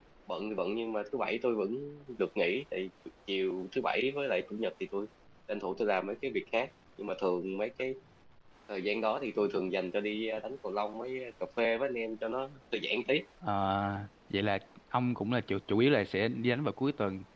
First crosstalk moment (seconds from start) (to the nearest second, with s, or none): none